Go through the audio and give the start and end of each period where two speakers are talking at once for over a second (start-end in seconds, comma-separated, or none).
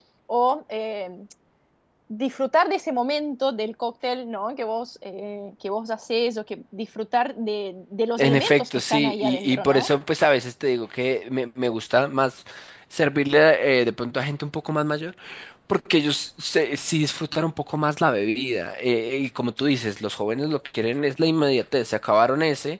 8.2-9.9